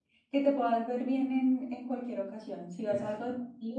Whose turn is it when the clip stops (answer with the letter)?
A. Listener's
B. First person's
B